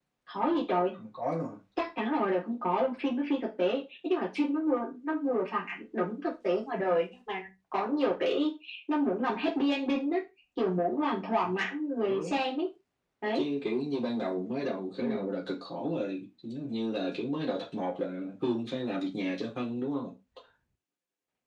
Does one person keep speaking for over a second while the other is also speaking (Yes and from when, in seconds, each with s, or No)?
No